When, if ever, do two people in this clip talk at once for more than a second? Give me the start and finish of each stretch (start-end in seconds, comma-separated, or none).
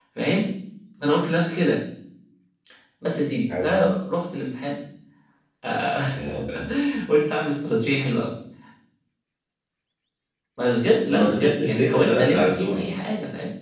11.1-12.8